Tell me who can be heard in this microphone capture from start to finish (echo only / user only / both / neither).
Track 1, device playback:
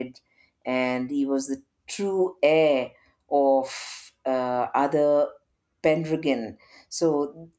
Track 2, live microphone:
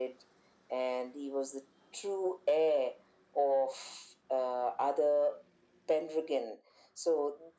echo only